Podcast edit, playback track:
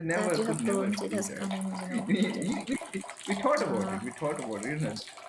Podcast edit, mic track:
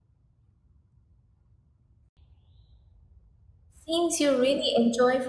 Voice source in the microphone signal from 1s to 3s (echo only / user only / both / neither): neither